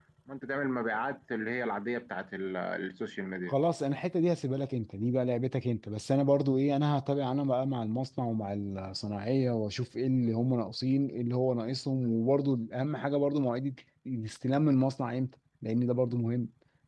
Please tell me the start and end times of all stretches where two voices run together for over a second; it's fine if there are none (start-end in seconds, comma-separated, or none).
none